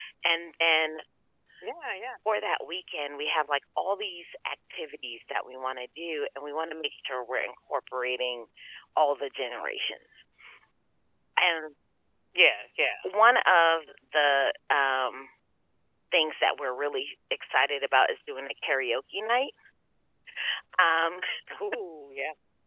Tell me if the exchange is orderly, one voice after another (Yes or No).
Yes